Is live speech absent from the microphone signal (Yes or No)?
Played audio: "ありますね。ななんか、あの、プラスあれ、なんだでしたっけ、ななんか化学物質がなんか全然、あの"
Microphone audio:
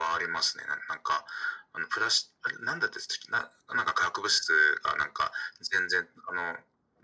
Yes